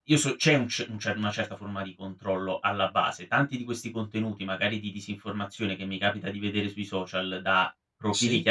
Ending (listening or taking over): listening